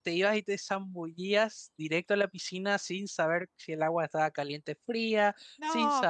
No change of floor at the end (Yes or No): No